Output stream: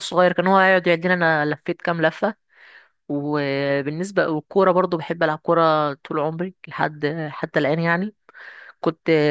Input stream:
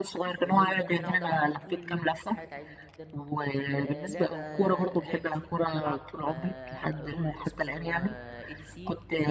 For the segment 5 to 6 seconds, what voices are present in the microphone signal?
both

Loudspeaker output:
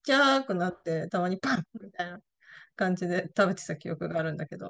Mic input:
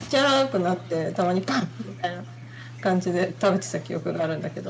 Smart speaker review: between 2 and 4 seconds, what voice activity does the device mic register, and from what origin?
echo only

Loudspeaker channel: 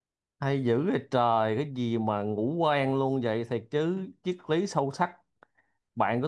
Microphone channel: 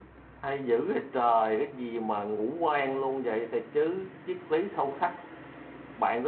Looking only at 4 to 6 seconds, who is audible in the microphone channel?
echo only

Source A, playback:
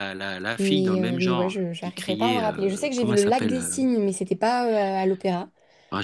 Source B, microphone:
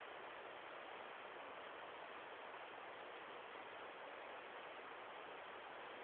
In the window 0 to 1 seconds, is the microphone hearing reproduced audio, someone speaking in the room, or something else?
neither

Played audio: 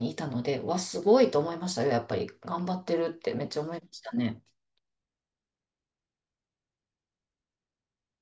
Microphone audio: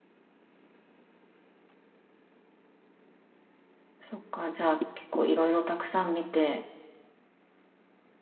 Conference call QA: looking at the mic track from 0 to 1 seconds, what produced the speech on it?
neither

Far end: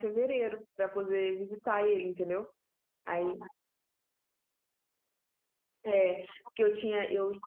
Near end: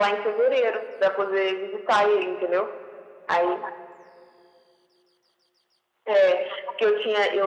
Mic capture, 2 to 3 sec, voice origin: echo only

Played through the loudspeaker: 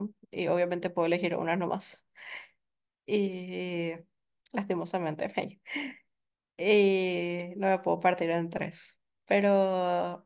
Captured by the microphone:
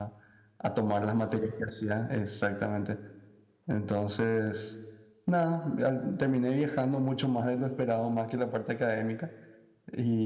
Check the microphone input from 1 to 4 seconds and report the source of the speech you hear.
user only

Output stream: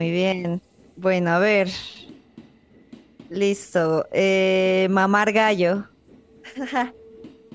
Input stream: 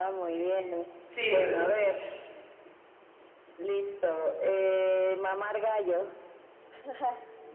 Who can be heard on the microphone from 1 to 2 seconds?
both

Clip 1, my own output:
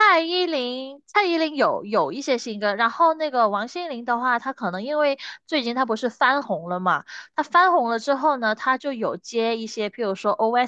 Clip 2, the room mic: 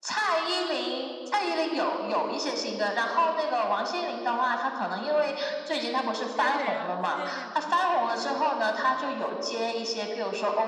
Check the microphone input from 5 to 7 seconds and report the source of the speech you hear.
both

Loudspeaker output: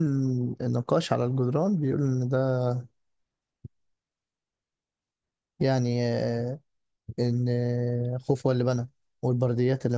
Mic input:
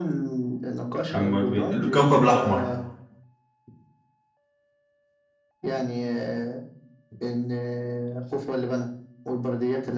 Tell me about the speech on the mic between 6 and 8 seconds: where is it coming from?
echo only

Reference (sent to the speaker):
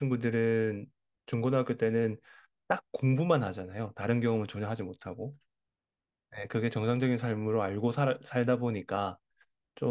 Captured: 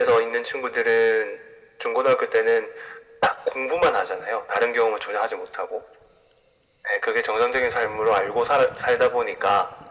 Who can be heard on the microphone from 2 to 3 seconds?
echo only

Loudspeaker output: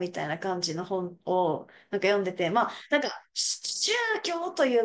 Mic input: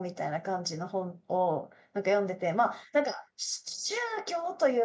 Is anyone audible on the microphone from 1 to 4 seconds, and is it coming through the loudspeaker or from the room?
echo only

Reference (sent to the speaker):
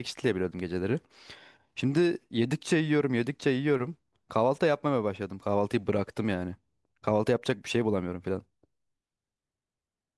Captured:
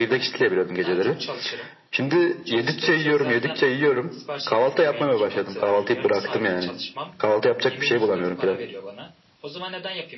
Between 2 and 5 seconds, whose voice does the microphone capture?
both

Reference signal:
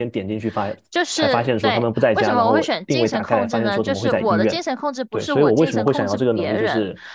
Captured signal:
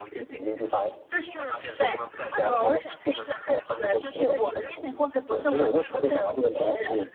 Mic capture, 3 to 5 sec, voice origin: echo only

